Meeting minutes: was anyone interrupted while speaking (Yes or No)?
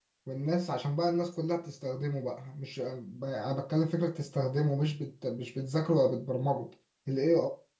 No